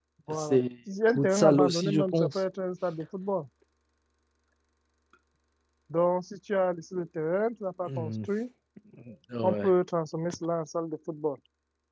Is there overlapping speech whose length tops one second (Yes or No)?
Yes